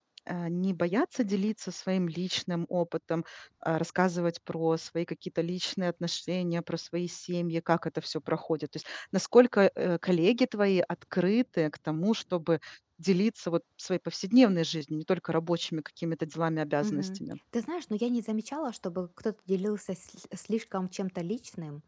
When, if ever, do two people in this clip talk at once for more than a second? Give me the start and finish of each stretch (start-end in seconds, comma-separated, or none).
none